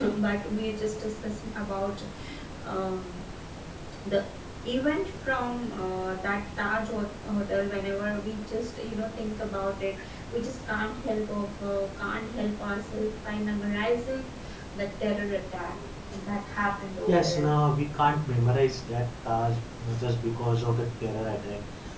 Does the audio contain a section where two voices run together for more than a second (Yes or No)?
No